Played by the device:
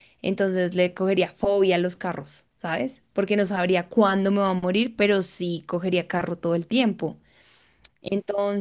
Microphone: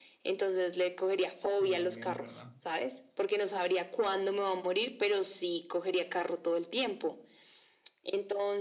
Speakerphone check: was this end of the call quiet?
No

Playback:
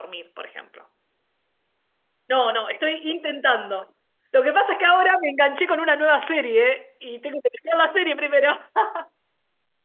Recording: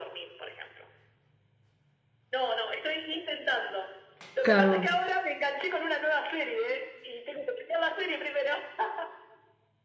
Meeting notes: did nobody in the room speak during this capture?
No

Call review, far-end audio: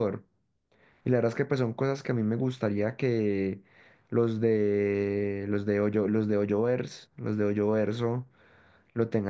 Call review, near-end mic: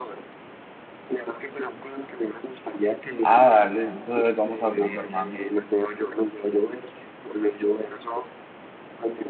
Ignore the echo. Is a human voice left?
Yes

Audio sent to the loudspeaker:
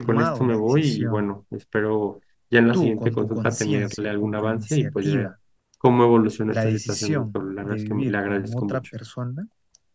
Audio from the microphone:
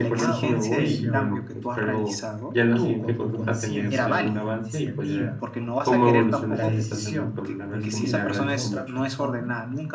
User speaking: Yes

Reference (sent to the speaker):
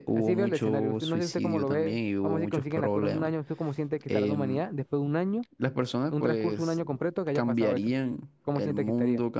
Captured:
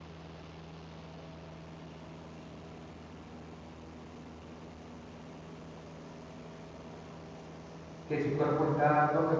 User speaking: Yes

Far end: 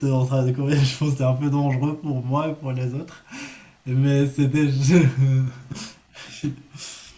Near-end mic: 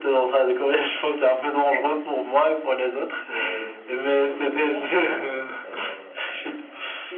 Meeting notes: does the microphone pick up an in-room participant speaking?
Yes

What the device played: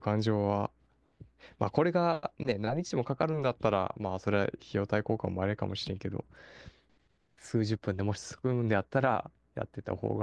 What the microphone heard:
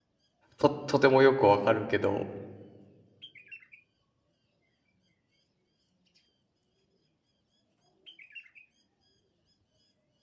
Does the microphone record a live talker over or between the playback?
Yes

